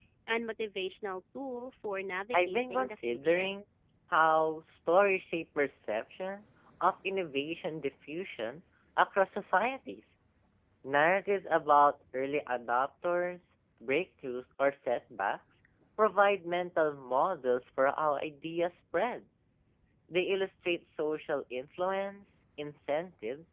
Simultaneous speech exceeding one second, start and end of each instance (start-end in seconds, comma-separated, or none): 2.3-3.5